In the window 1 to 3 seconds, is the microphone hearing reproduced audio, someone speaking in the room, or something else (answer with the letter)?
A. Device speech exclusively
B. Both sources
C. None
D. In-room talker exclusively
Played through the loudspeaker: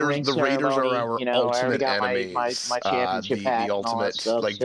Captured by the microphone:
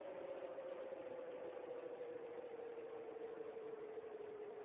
C